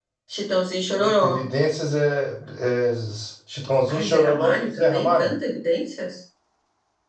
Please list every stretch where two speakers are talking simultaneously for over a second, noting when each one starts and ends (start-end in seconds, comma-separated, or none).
3.9-5.3